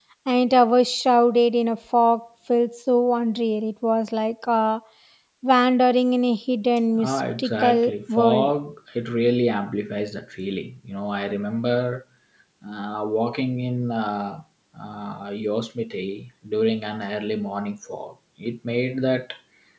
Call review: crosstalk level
present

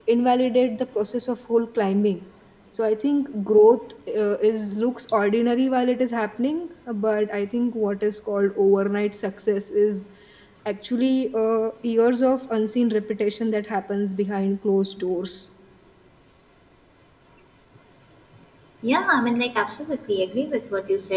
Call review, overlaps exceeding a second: none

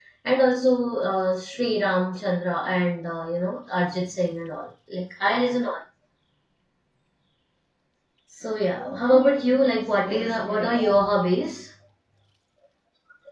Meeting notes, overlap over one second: present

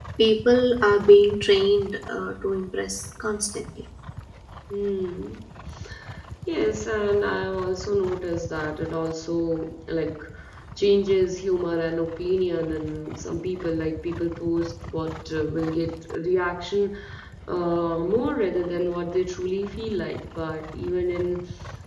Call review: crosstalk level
none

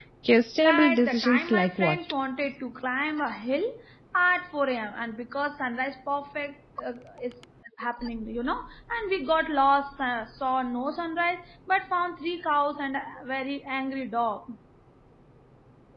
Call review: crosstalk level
present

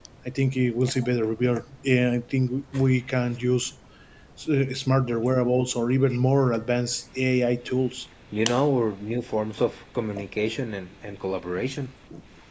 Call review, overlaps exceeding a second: none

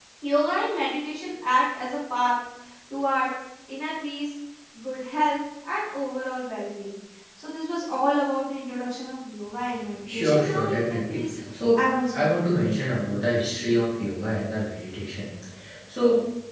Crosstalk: present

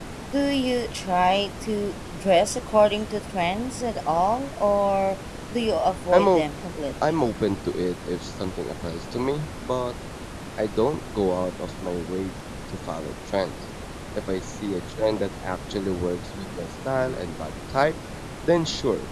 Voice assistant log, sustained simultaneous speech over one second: none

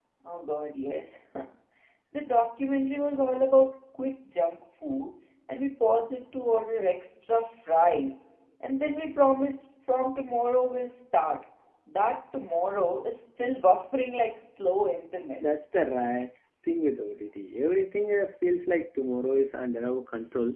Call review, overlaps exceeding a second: none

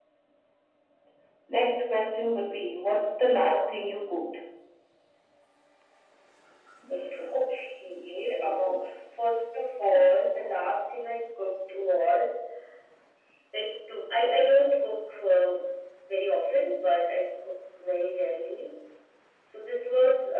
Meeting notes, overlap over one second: none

